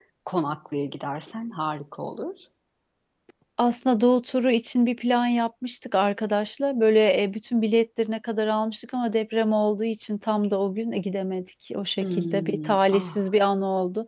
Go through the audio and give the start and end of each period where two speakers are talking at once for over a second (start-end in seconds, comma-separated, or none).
12.0-13.2